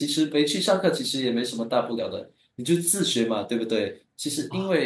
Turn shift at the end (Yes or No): No